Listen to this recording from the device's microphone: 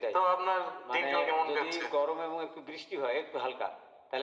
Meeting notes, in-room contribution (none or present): none